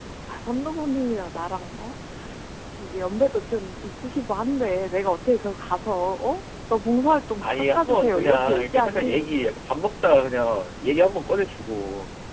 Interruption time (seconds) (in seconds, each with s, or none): 7.4 s